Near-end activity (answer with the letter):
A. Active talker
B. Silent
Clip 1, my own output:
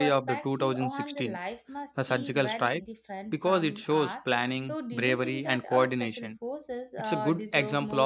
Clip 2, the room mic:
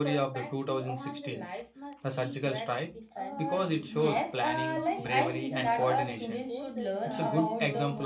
A